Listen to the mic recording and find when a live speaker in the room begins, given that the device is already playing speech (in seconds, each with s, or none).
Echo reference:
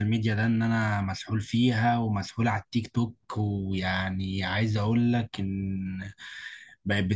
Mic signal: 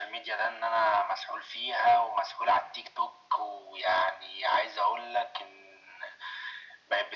none